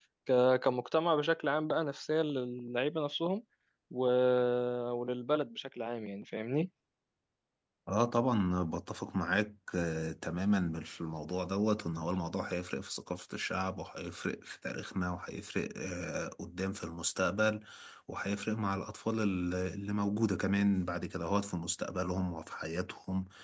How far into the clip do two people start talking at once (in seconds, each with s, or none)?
none